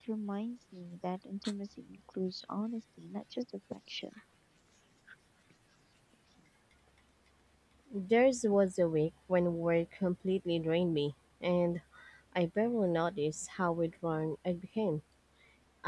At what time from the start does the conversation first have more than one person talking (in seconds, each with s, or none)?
none